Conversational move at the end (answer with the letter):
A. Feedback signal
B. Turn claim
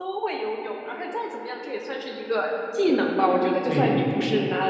A